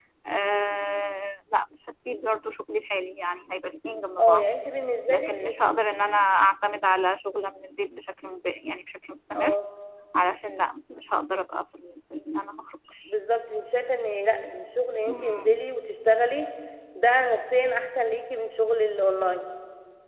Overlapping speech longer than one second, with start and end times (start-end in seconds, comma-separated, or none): none